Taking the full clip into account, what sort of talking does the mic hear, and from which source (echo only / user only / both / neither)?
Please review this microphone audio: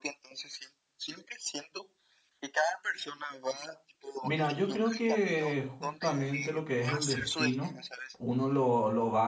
both